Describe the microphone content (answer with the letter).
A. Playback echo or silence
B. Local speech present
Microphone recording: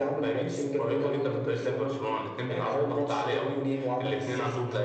A